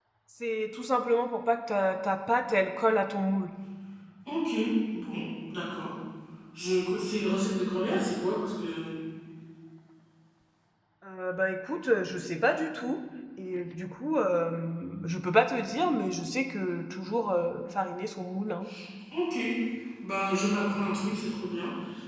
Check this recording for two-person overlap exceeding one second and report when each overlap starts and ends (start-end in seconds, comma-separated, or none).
none